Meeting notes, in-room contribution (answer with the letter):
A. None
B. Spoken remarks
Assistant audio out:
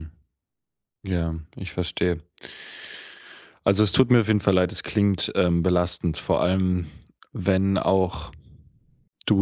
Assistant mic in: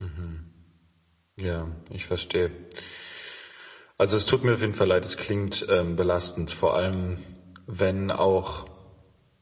A